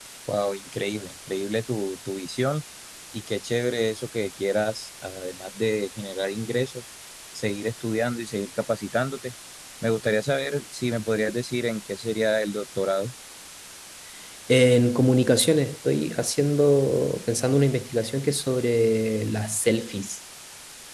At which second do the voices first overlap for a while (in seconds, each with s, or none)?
none